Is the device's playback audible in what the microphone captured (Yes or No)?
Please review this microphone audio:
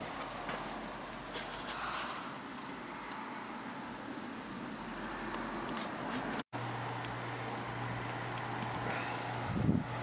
No